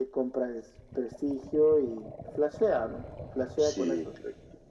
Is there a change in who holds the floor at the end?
Yes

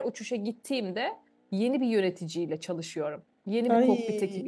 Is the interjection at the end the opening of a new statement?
No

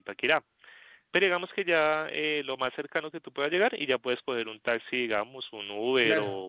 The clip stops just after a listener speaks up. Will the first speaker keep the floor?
No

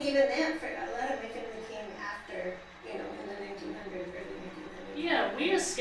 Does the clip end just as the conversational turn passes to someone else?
Yes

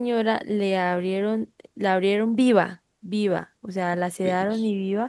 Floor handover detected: No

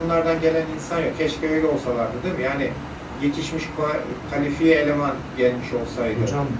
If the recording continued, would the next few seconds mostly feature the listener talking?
Yes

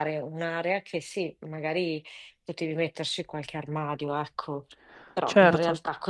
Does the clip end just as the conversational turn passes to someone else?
No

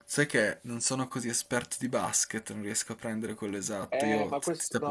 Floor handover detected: Yes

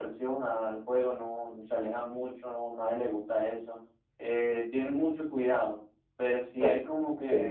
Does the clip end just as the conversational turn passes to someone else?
No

